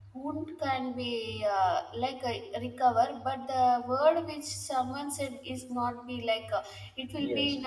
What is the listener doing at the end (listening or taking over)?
listening